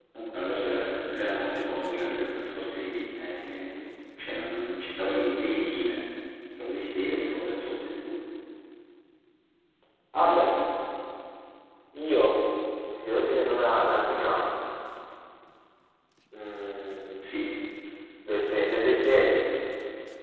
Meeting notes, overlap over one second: none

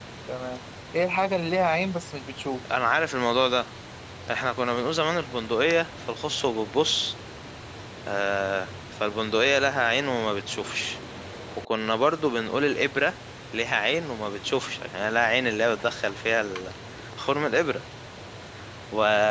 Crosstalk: none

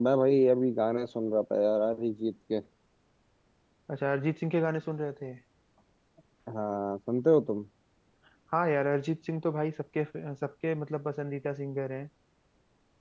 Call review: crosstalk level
none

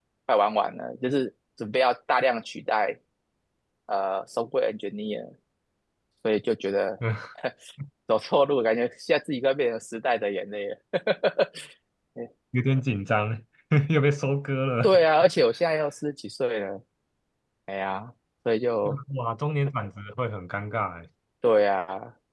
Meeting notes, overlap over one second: none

